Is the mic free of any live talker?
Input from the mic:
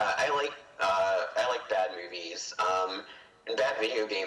Yes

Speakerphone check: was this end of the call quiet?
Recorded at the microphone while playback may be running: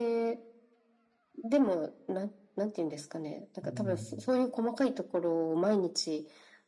No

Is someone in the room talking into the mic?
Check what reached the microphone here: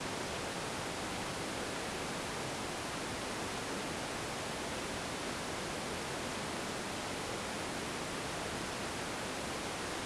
No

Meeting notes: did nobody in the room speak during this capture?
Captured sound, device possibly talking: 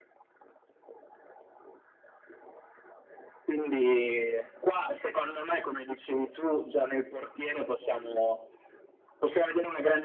Yes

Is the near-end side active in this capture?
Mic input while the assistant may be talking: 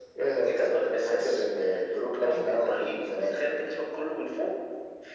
No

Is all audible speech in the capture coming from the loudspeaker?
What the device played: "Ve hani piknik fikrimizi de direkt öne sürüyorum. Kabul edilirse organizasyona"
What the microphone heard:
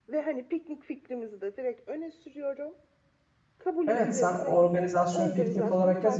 No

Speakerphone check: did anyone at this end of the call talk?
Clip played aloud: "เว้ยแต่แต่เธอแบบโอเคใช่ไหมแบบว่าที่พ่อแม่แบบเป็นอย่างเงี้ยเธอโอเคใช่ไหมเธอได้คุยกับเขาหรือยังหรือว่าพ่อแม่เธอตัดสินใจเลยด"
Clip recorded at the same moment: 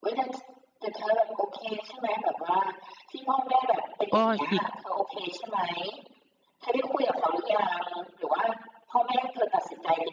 Yes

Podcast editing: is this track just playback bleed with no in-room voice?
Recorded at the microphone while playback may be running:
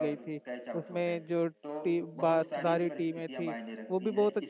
No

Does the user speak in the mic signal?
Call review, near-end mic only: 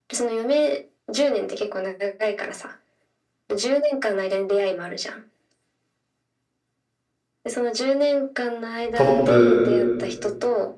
Yes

